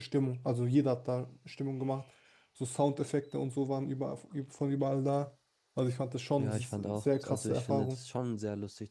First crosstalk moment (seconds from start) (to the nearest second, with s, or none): 6 s